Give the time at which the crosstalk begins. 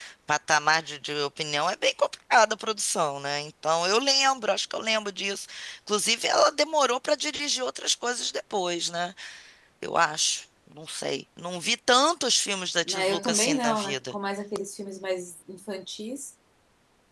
12.9 s

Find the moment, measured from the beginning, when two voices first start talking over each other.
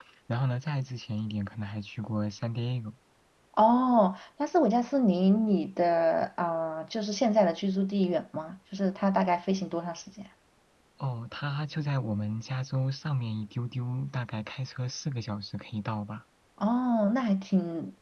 none

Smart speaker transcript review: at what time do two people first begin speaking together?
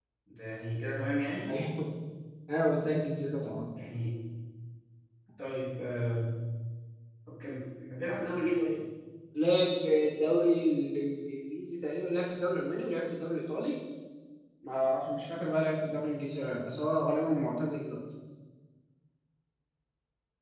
none

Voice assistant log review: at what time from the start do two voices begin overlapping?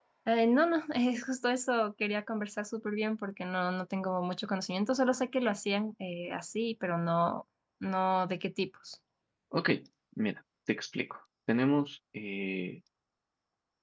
none

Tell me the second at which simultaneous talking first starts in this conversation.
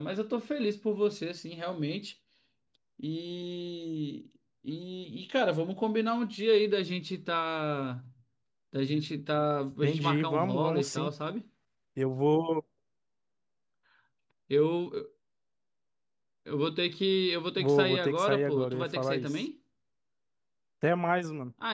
9.8 s

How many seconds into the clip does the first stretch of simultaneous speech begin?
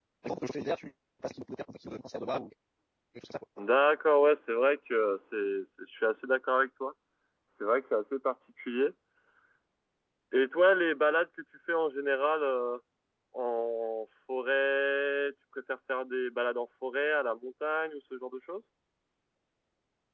none

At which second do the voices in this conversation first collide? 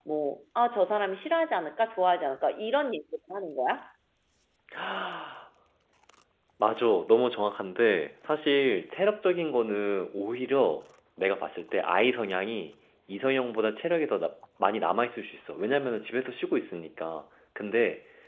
none

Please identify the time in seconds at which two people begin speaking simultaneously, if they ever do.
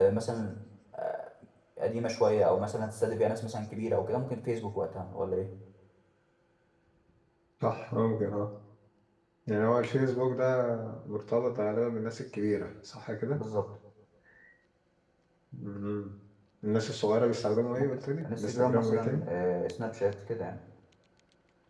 17.8 s

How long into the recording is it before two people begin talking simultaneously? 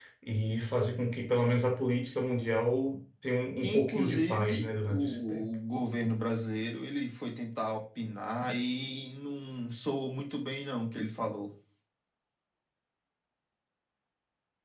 3.6 s

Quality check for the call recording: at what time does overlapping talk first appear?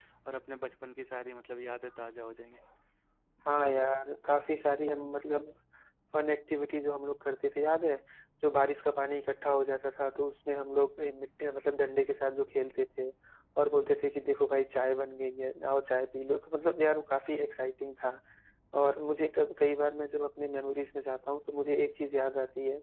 none

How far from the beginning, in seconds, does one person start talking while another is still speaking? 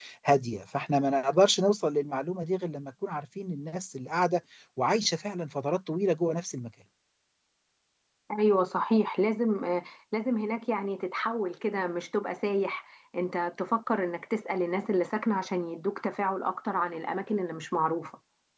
none

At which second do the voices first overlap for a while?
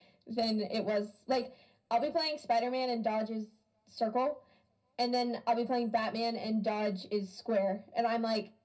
none

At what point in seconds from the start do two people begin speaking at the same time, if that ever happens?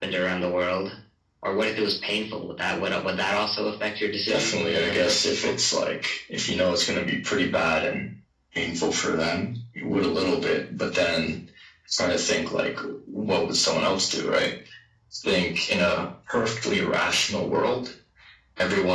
4.3 s

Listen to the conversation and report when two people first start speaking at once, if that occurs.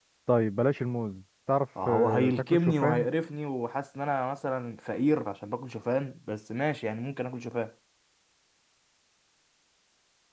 1.8 s

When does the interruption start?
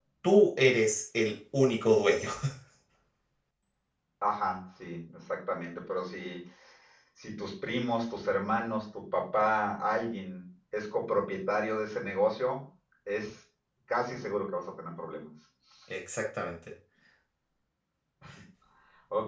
none

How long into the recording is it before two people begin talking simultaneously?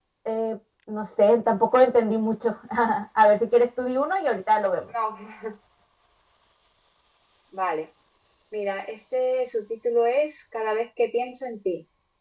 none

